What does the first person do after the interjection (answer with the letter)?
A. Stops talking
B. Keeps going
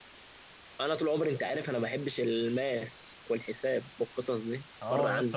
A